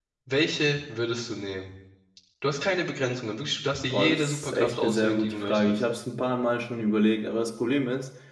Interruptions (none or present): present